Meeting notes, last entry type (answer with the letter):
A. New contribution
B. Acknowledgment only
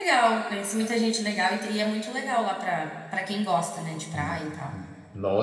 A